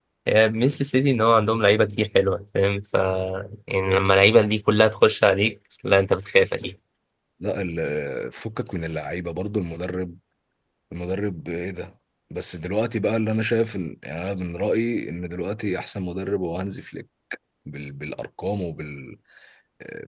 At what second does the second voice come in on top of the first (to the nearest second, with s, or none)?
none